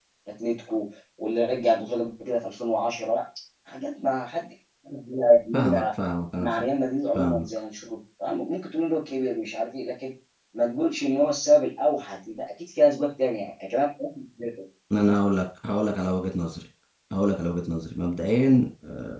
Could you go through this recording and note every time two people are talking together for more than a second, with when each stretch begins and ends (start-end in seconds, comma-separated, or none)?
none